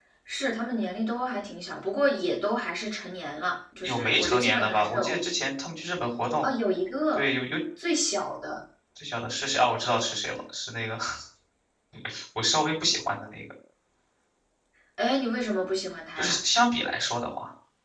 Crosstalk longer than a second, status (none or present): present